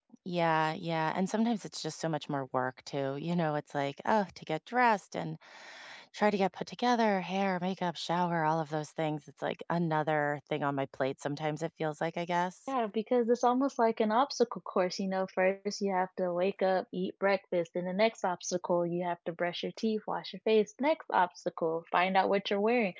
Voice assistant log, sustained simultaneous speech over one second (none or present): none